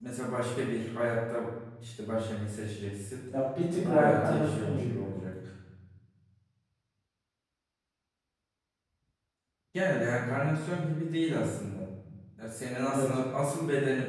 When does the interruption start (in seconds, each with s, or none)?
3.9 s